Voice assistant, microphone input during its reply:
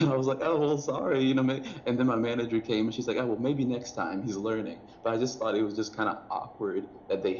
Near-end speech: none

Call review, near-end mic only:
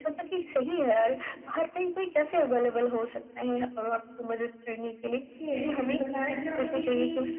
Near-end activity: present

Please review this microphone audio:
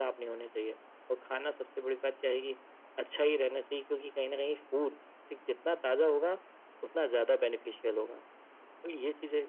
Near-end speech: none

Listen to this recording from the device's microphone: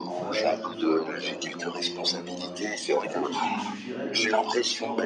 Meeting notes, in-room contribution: present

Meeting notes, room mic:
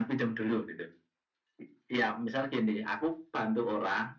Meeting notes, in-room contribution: none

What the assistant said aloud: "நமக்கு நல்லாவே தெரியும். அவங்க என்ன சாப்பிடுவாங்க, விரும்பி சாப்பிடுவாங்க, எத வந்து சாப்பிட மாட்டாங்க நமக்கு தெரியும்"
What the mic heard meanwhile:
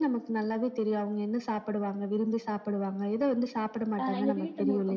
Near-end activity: present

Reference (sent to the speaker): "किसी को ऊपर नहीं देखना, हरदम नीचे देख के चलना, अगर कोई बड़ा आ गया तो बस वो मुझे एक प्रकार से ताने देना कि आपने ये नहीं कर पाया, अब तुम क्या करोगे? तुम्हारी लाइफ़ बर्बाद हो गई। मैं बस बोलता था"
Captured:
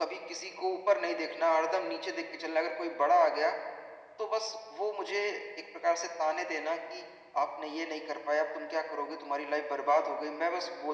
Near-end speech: none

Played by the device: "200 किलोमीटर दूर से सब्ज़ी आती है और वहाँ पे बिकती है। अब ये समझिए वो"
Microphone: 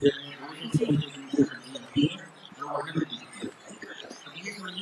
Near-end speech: present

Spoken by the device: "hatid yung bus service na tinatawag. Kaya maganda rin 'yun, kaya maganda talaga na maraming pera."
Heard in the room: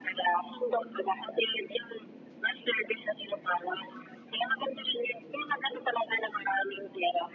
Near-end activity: none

